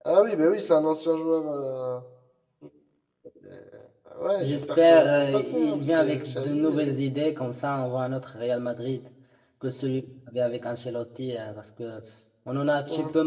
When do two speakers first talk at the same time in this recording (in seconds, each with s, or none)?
4.4 s